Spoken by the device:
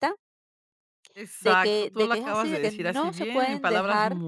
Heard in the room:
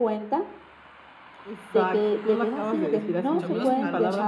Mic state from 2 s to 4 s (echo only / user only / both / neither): both